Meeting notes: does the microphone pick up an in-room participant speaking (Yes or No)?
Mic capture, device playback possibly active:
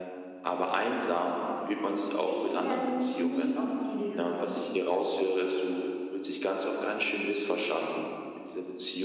Yes